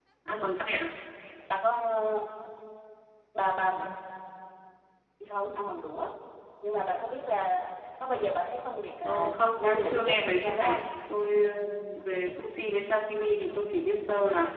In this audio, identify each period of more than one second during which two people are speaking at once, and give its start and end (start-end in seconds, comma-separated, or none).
9.0-10.8